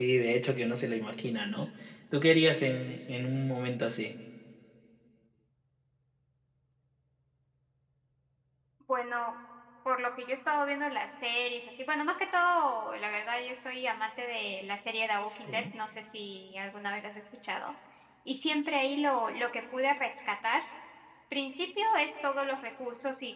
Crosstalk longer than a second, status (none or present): none